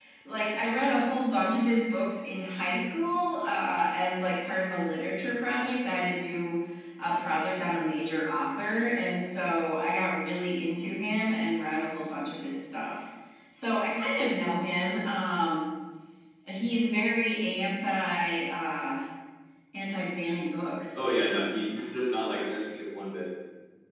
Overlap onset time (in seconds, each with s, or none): none